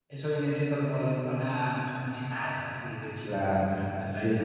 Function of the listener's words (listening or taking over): taking over